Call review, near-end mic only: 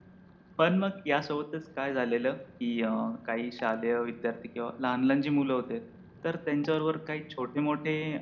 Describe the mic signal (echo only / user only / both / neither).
user only